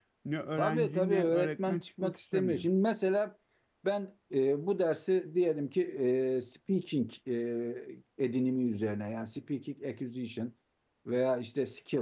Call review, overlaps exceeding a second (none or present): present